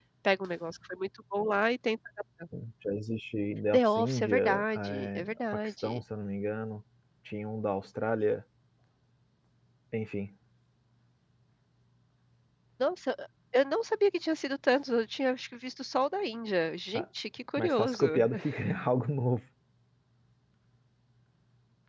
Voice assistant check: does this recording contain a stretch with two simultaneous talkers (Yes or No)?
Yes